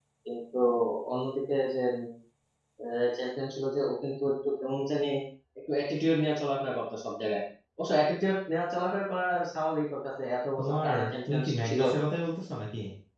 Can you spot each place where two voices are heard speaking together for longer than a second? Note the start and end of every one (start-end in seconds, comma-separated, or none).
10.6-11.8